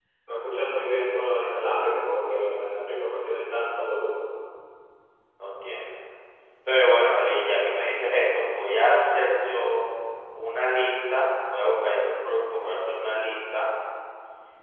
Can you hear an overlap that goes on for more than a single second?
No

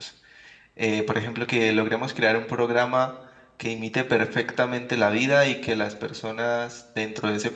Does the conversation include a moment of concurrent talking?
No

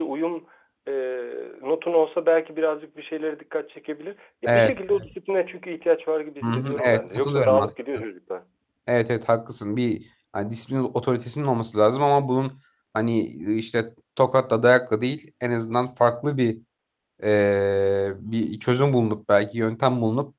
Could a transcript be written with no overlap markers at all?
No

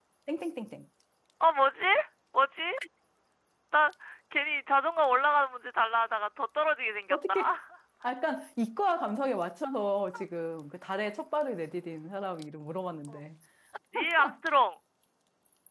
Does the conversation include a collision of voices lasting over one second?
No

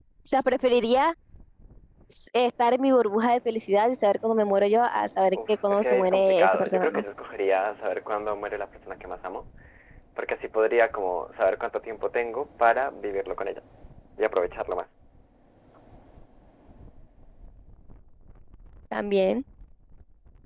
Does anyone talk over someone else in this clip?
Yes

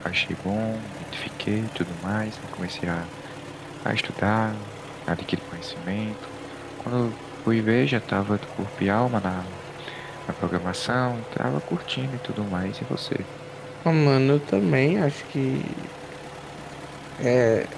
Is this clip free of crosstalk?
Yes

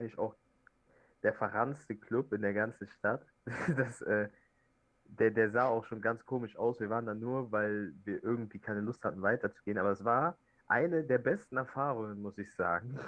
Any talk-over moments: No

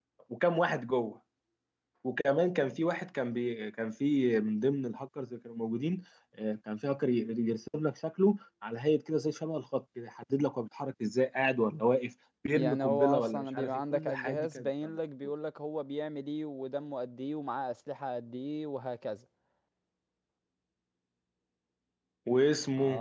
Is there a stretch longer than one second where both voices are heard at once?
Yes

